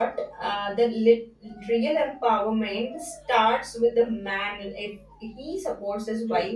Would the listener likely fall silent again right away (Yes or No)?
No